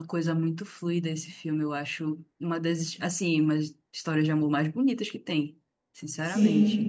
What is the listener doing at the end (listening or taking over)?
taking over